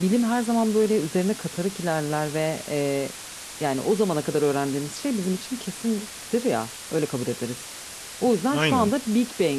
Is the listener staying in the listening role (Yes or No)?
Yes